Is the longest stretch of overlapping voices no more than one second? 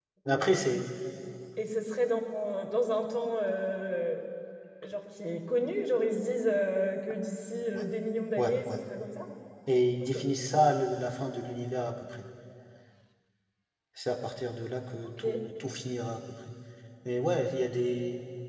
Yes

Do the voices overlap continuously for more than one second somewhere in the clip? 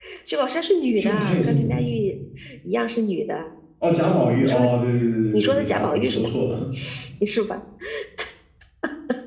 Yes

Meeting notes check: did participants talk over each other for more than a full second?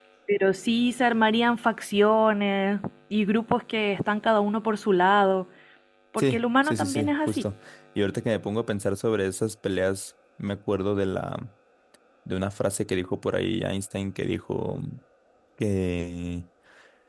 Yes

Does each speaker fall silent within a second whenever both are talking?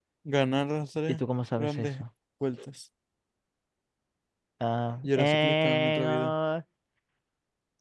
No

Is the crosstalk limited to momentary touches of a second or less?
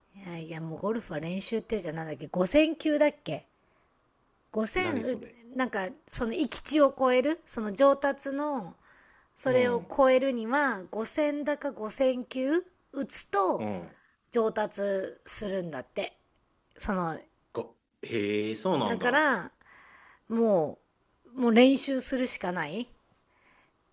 Yes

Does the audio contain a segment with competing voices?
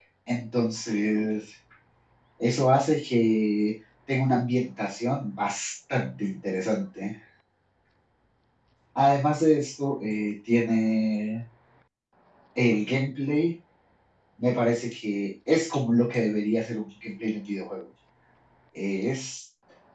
No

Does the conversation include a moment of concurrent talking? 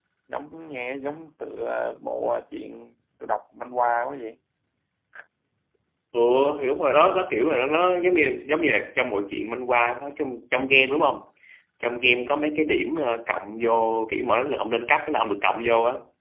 No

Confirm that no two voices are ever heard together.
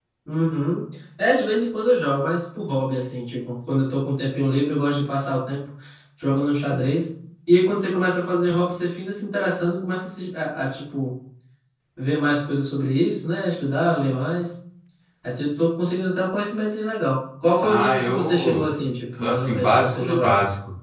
No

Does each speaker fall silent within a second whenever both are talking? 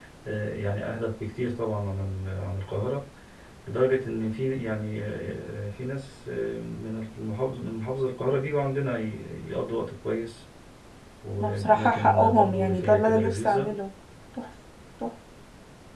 No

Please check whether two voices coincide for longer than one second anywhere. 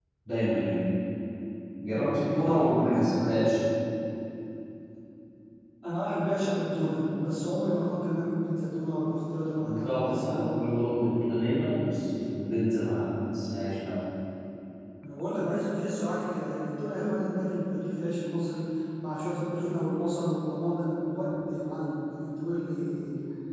Yes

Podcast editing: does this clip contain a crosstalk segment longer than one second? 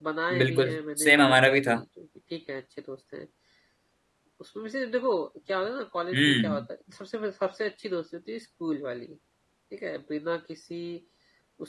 Yes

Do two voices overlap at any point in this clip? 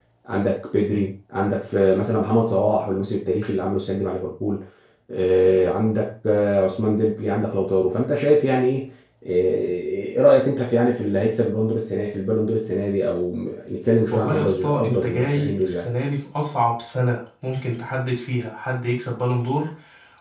Yes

